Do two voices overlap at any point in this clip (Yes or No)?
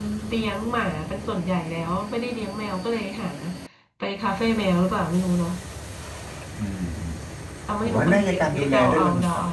Yes